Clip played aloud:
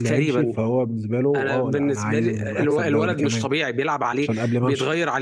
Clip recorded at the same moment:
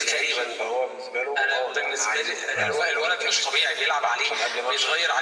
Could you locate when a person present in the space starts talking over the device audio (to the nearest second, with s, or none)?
3 s